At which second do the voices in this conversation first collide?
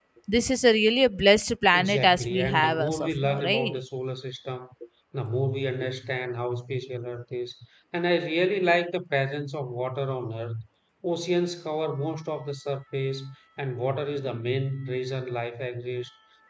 1.7 s

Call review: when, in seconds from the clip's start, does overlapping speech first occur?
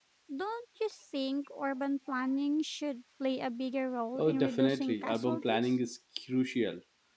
4.2 s

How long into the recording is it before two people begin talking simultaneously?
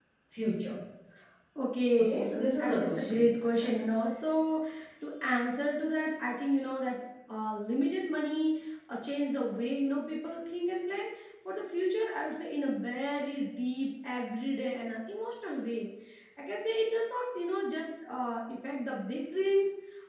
2.0 s

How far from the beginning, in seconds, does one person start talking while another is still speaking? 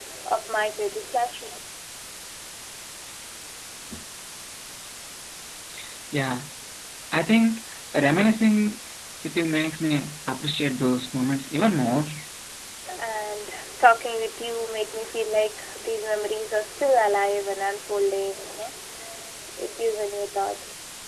none

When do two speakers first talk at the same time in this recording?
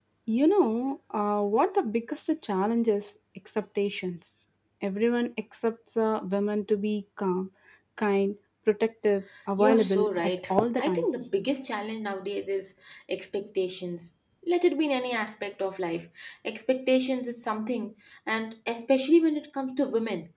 9.6 s

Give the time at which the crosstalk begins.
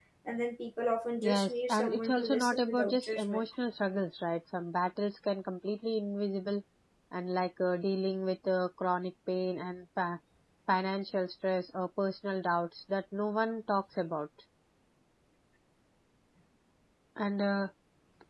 1.2 s

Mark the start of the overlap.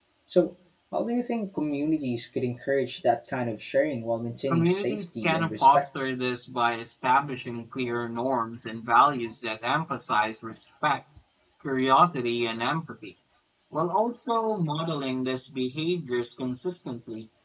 4.5 s

